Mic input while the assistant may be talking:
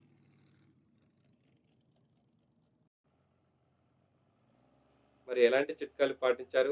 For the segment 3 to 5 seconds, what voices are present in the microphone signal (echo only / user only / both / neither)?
neither